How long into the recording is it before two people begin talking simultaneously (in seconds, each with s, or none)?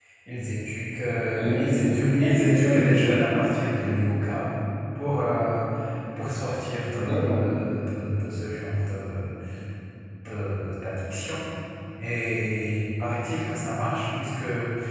1.3 s